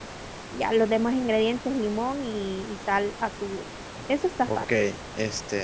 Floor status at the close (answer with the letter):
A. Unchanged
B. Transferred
B